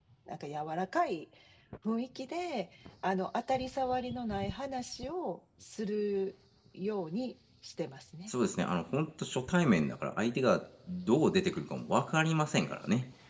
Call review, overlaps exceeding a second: none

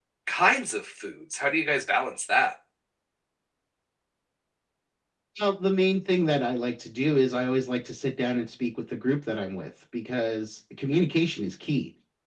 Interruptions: none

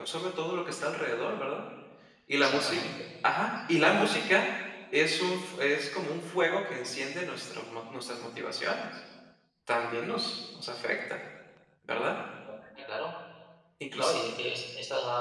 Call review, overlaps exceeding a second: none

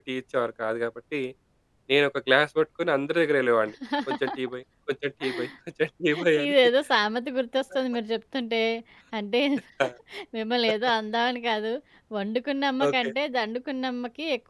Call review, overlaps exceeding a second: none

